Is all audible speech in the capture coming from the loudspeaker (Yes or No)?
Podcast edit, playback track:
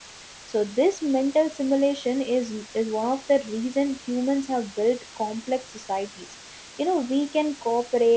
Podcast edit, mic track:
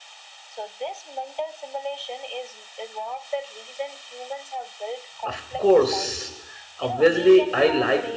No